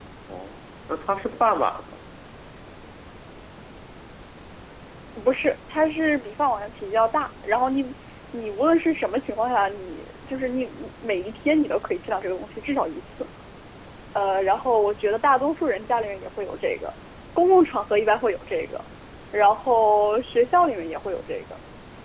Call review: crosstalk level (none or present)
none